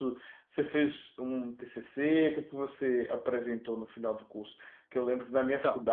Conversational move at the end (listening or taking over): listening